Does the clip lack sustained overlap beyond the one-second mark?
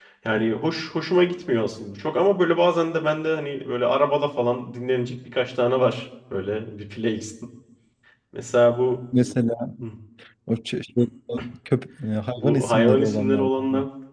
No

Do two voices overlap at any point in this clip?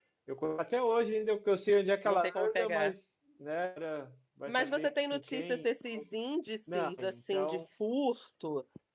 Yes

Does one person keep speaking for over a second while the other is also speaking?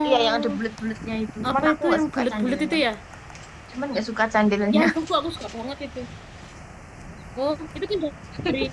Yes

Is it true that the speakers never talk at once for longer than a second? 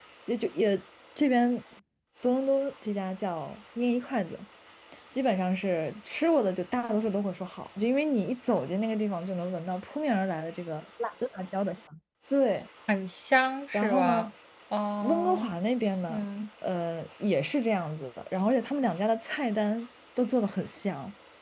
Yes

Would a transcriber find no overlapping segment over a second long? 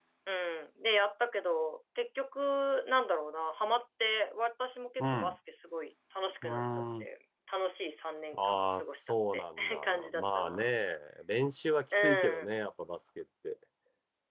No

